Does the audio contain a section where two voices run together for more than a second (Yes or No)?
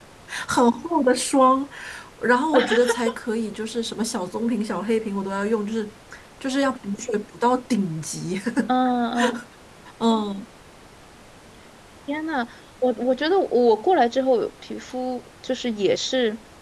No